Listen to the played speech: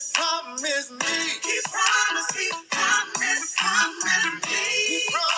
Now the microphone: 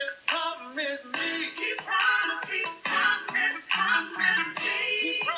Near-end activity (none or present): none